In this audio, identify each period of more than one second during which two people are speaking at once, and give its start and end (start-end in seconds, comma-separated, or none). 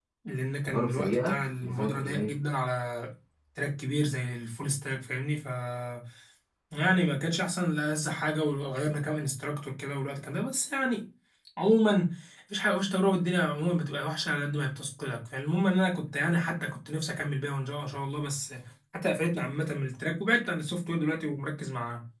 0.6-2.3